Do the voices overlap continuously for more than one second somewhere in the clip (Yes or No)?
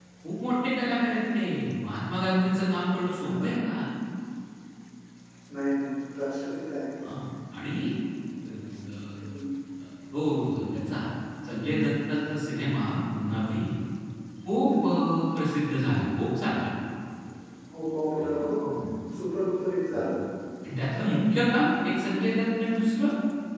No